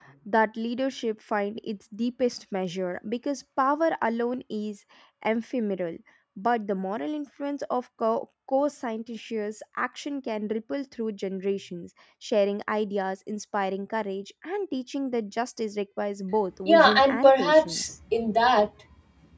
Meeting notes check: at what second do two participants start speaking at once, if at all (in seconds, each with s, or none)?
16.7 s